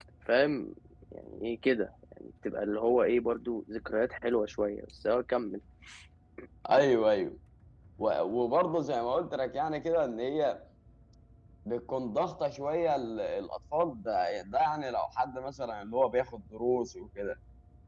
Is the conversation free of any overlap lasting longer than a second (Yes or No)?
Yes